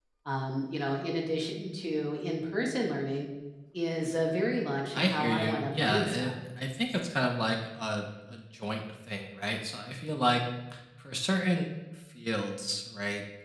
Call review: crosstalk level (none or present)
present